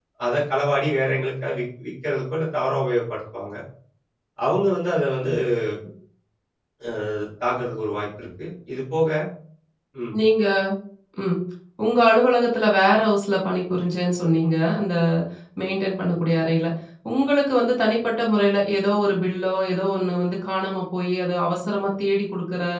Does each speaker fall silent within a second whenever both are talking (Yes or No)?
Yes